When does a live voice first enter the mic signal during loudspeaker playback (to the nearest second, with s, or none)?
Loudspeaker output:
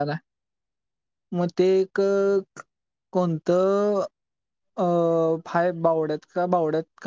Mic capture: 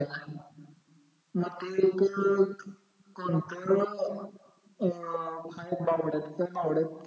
none